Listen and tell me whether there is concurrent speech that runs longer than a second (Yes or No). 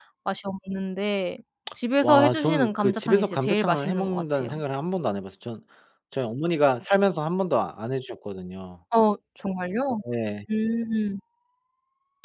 Yes